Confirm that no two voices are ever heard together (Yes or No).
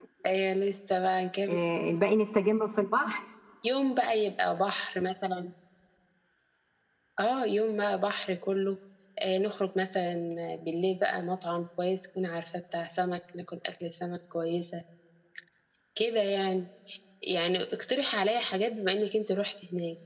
Yes